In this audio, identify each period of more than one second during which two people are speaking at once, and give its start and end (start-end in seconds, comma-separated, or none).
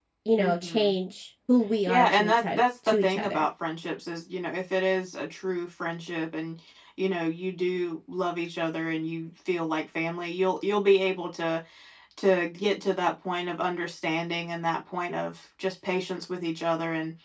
1.9-3.5